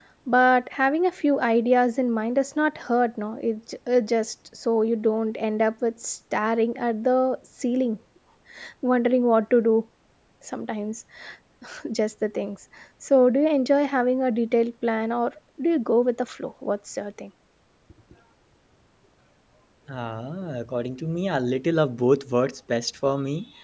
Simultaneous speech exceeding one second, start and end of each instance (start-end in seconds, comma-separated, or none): none